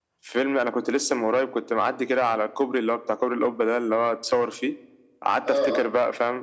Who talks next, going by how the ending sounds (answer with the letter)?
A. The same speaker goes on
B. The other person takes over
A